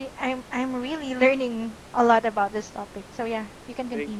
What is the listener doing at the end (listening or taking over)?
taking over